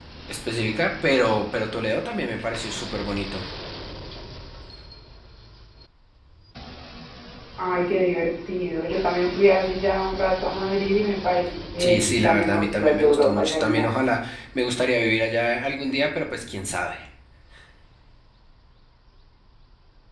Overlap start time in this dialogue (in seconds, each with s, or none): 11.8 s